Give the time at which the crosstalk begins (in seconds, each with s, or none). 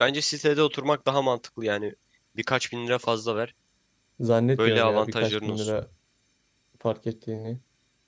4.6 s